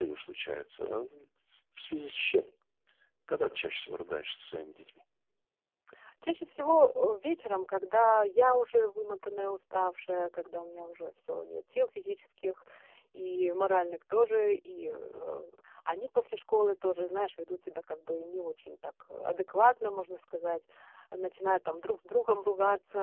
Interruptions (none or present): none